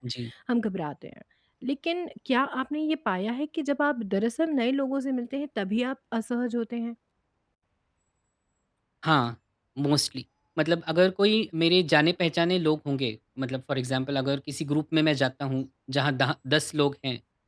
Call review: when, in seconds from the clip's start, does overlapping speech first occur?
none

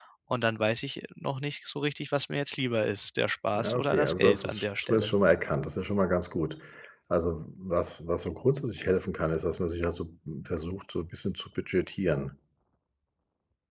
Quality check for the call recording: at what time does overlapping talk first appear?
3.5 s

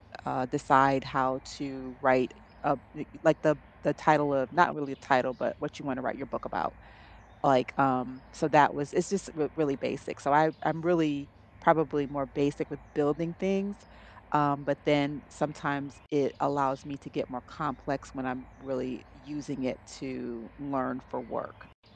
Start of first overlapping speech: none

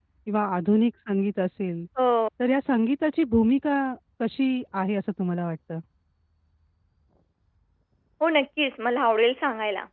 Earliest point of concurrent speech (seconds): none

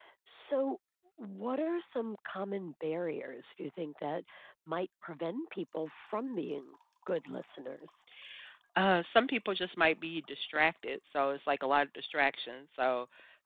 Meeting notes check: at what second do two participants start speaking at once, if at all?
none

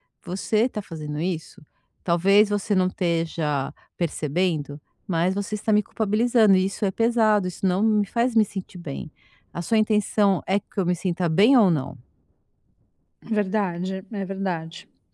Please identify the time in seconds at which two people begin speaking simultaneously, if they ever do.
none

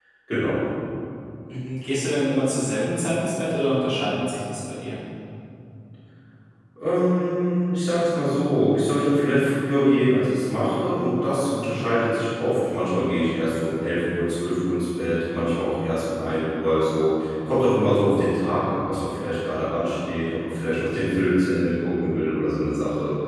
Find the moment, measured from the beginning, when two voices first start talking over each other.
none

